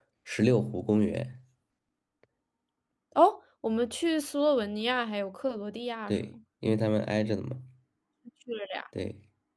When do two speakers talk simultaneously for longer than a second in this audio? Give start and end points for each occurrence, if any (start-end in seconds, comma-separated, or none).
none